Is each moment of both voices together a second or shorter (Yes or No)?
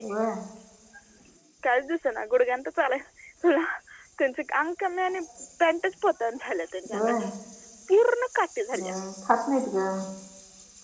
Yes